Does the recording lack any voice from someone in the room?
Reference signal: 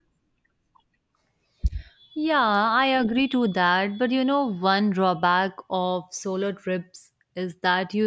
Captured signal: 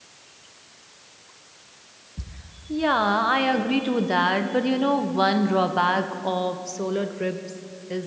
Yes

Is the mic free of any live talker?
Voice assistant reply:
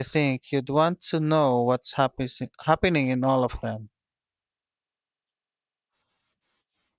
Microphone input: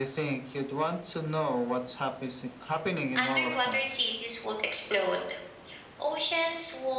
No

